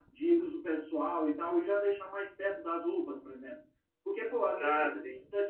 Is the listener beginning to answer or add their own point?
No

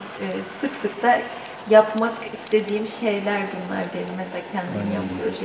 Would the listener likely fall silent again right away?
No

